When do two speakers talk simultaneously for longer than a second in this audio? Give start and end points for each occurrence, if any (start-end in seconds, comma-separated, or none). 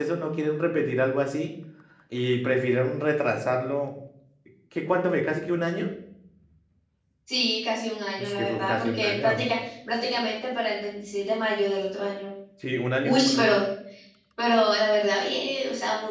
8.2-9.4